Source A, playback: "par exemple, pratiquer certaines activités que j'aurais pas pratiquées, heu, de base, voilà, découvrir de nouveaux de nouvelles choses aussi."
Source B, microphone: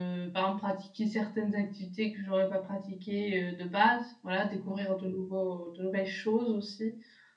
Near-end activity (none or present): none